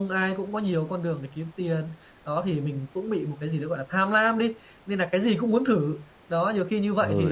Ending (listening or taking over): taking over